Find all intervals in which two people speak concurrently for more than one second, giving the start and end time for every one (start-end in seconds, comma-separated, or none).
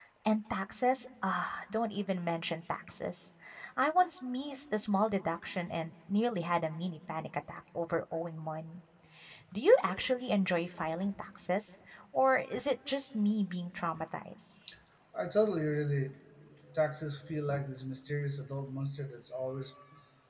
none